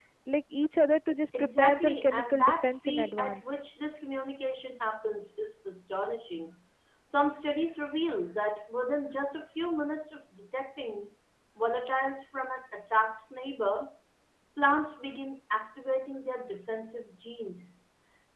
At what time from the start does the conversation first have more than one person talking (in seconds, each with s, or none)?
1.3 s